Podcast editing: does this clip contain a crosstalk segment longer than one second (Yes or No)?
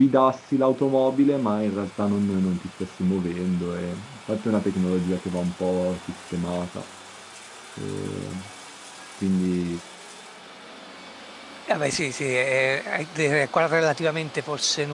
No